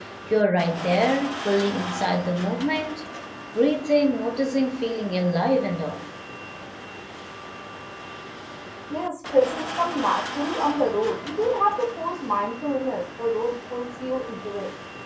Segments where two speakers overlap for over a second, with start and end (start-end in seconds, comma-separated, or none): none